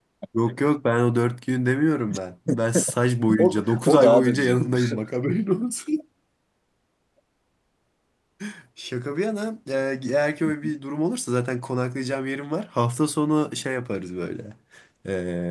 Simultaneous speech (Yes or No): Yes